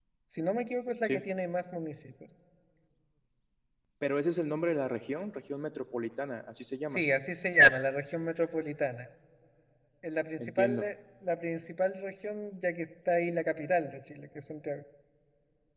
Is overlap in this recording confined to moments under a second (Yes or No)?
Yes